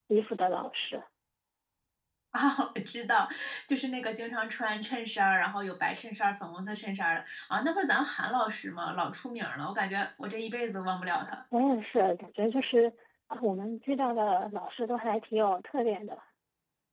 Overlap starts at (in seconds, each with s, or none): none